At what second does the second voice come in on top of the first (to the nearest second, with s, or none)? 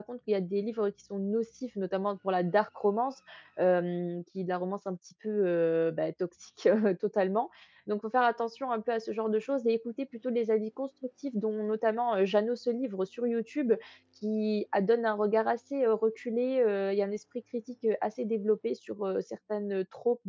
none